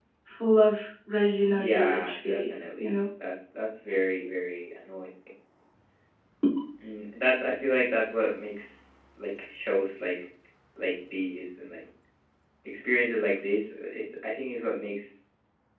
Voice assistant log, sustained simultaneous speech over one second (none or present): present